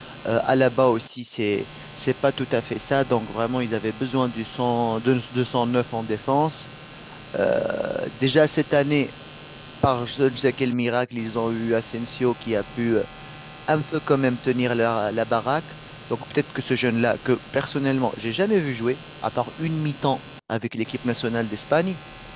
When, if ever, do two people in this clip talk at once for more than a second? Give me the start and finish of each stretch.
none

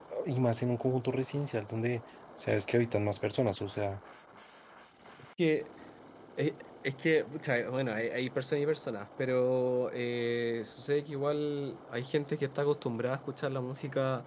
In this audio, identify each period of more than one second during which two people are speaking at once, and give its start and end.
none

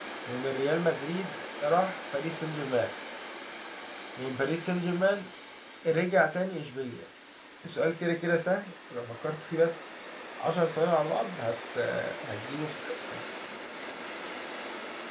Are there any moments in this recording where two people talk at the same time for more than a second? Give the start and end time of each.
none

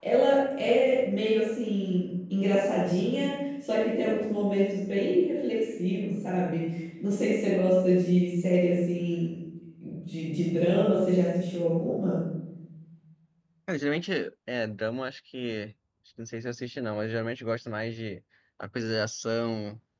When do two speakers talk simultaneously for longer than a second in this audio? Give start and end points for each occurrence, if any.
none

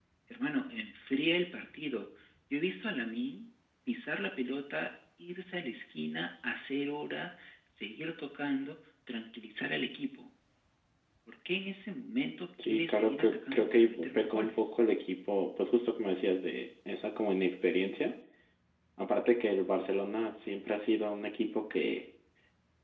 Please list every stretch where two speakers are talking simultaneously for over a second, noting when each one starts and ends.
12.6-14.7

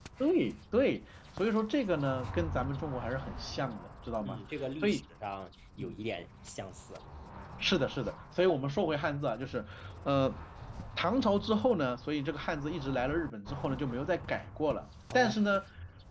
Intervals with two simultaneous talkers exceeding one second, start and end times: none

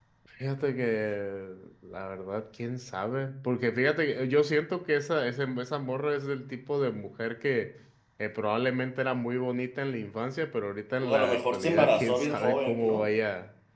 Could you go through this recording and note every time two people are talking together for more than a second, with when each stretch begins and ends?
11.0-13.0

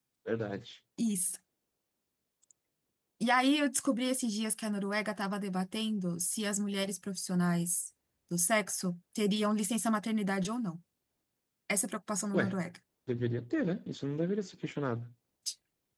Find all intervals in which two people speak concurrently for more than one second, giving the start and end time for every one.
none

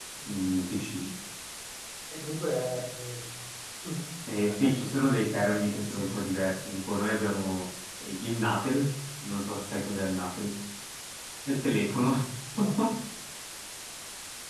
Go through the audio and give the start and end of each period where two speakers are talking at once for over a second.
none

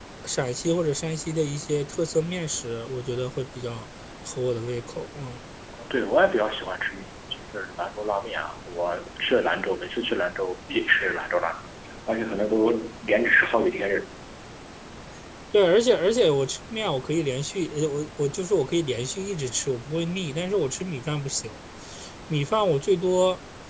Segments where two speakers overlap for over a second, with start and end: none

